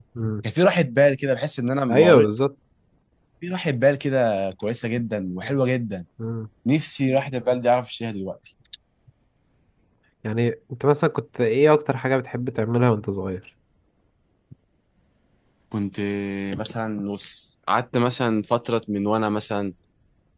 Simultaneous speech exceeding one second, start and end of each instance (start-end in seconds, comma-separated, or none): none